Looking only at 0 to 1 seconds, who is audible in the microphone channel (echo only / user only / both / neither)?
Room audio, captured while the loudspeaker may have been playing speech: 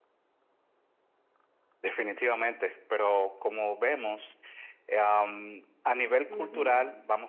neither